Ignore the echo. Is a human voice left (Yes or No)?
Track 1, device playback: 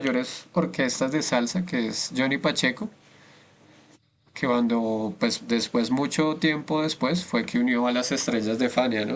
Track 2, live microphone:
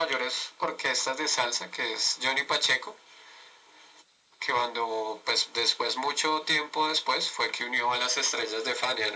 No